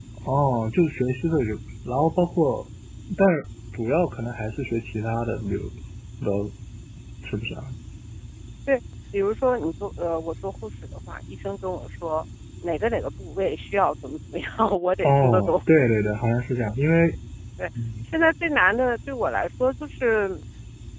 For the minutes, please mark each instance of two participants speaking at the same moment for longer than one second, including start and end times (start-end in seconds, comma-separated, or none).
none